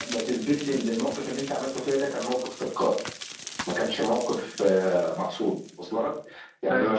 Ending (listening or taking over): listening